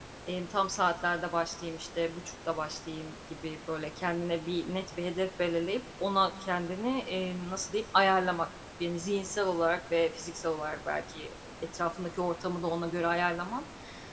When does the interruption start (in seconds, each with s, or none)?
none